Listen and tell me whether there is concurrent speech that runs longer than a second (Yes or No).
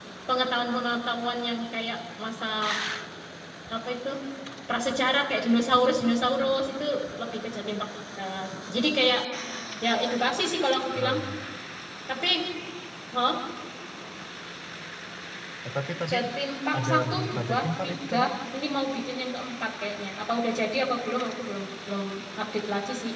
Yes